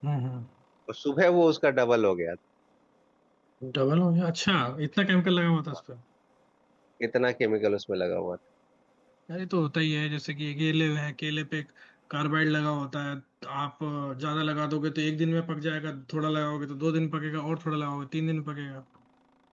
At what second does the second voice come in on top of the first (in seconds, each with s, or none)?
none